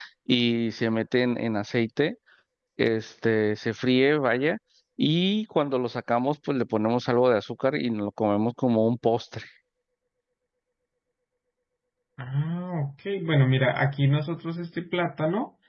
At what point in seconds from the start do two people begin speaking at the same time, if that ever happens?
none

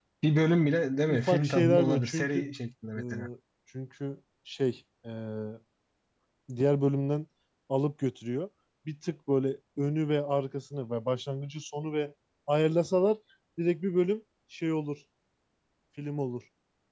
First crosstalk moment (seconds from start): 1 s

